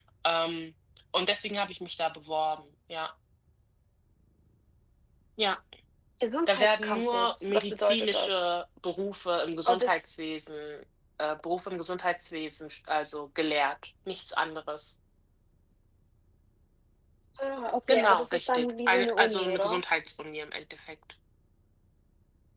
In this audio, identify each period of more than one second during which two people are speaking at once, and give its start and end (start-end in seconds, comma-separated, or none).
6.5-8.6, 17.9-19.8